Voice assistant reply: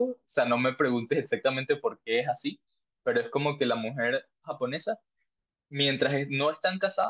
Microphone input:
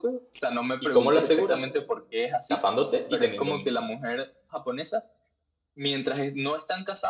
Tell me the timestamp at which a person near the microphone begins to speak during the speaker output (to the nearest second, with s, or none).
1 s